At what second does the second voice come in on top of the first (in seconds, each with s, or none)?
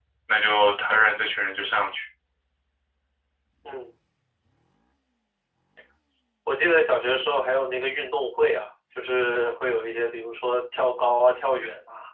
none